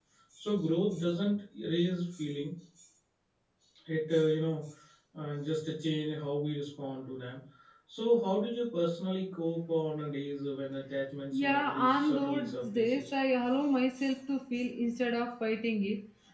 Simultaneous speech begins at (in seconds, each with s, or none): 11.3 s